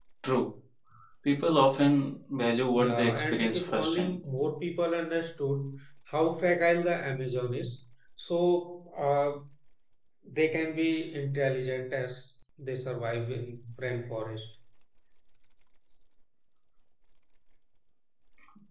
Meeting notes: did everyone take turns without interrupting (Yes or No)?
No